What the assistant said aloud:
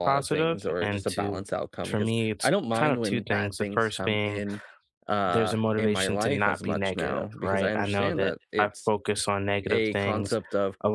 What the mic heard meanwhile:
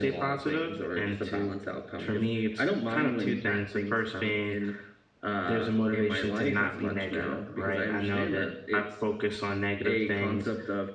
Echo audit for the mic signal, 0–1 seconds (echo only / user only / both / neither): echo only